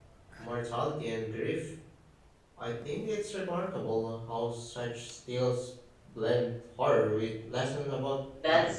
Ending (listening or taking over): taking over